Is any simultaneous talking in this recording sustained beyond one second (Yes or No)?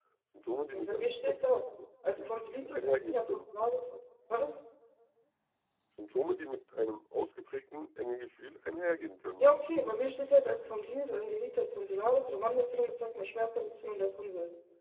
Yes